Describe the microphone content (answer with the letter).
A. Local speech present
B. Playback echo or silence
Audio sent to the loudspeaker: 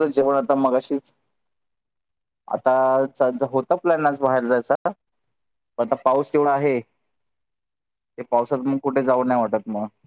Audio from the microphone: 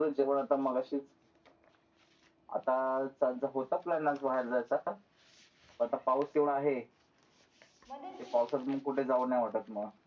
A